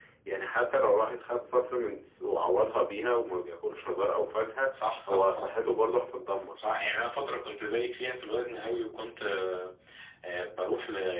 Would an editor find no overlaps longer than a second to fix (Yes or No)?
Yes